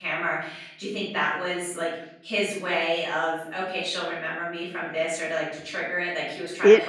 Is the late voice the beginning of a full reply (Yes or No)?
Yes